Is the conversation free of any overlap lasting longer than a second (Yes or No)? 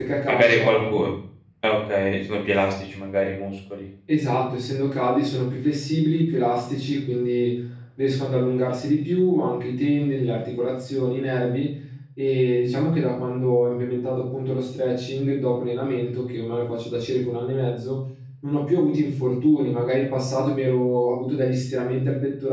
Yes